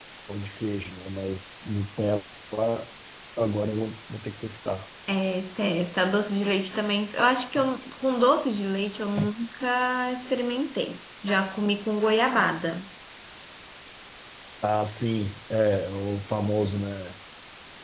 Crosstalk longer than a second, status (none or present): none